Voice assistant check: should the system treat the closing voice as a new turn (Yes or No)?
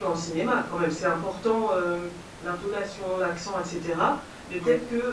No